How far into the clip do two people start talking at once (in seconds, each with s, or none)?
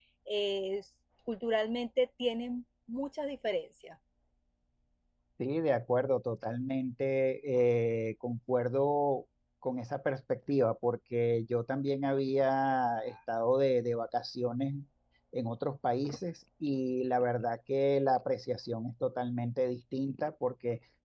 none